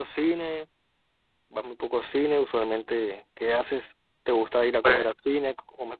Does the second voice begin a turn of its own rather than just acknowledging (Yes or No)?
No